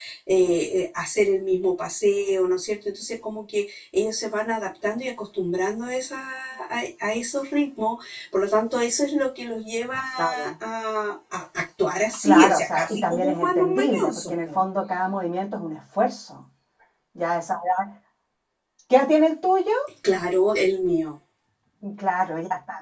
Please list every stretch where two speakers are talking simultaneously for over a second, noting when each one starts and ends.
12.2-14.6

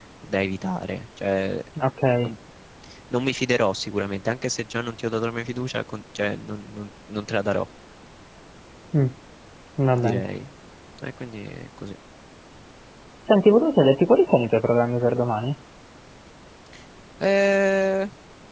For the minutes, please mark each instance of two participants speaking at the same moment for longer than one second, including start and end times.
none

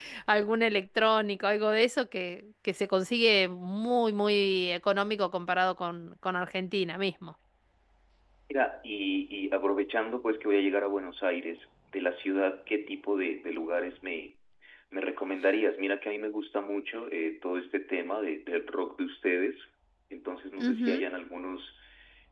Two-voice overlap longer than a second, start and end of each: none

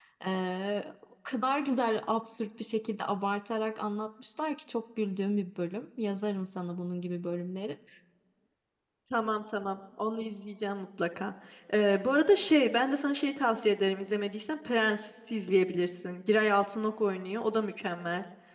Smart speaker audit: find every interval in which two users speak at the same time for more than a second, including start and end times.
none

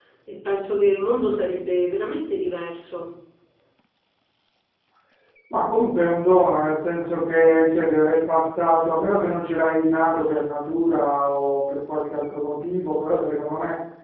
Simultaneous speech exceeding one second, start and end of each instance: none

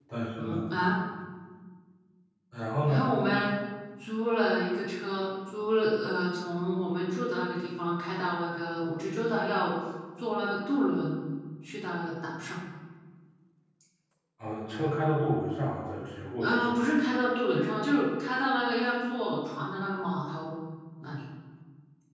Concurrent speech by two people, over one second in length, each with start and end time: none

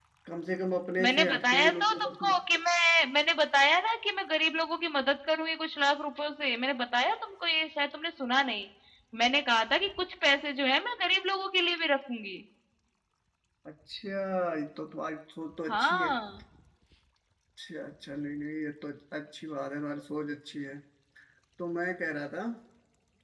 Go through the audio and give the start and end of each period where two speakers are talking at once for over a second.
1.0-2.3

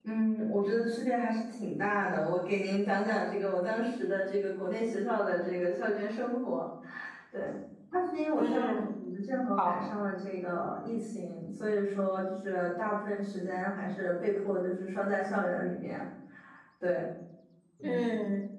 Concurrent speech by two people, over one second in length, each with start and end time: none

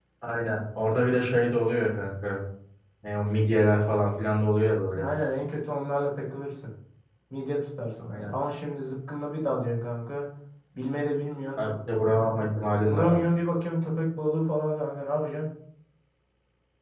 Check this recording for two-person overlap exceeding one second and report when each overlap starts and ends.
none

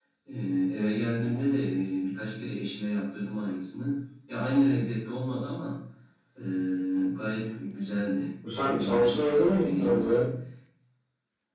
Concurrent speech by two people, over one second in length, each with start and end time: 8.6-10.3

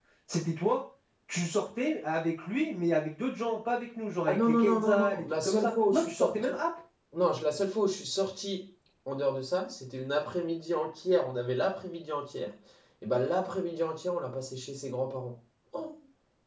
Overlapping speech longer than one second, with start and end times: 4.3-6.6

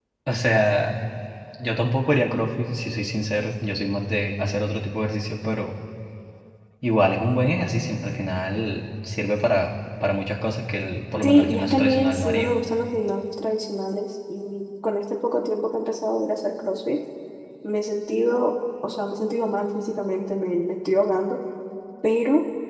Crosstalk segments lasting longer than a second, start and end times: 11.2-12.5

